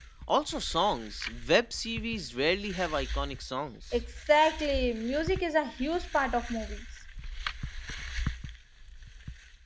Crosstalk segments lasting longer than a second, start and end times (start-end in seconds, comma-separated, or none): none